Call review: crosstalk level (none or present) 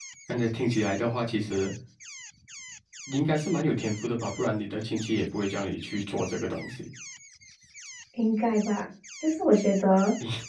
none